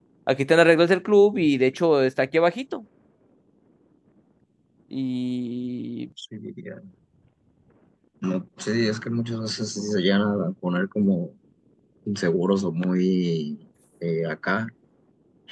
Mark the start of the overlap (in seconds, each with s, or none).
none